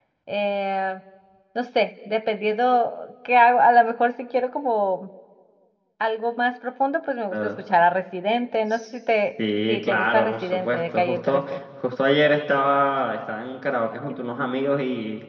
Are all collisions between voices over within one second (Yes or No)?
No